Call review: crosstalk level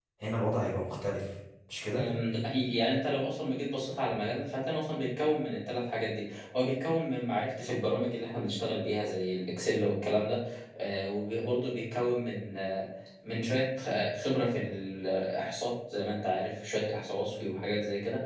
none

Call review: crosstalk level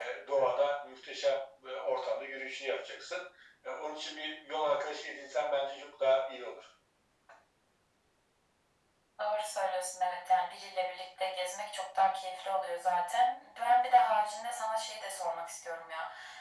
none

